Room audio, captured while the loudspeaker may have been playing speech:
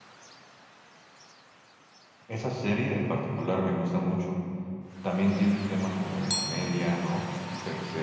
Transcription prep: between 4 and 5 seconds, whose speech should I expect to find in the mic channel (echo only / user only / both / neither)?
user only